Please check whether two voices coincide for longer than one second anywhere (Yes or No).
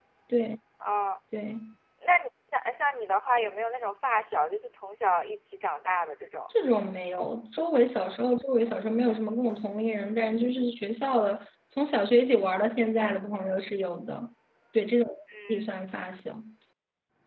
No